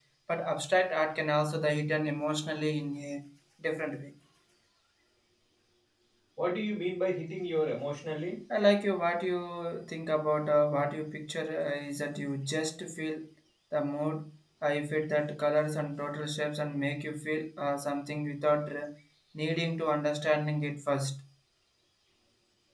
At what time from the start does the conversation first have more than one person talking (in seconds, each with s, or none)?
none